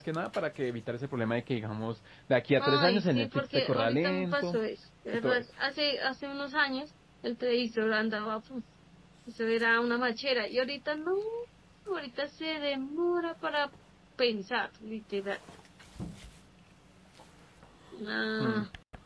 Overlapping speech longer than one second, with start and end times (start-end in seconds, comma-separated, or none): 2.6-4.6